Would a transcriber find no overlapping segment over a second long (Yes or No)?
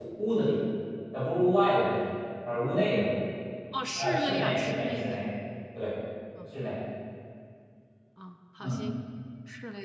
No